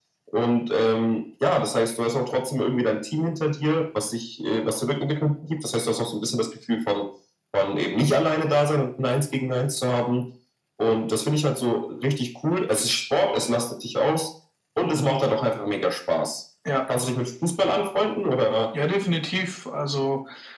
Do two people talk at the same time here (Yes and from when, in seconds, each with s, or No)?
No